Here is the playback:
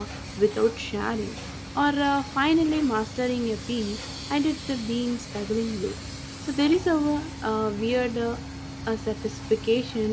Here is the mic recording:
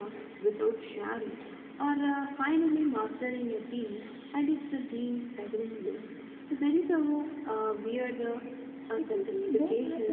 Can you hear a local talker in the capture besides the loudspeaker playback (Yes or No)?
Yes